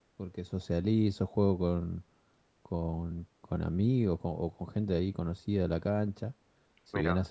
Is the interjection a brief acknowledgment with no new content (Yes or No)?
Yes